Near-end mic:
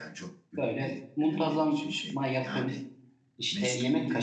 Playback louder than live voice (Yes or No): No